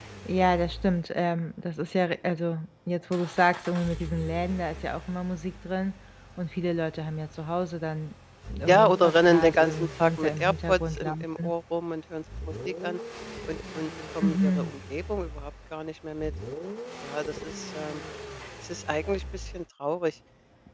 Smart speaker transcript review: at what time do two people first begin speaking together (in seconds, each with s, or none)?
8.7 s